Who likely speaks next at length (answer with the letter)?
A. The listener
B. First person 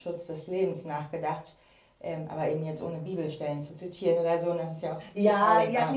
A